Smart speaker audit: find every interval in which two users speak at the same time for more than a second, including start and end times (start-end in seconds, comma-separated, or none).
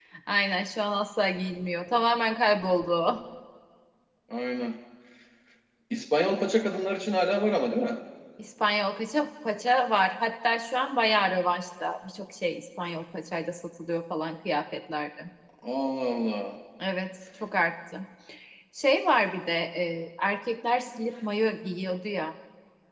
none